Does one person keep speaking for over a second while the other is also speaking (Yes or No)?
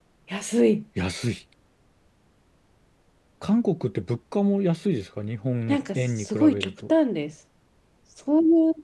Yes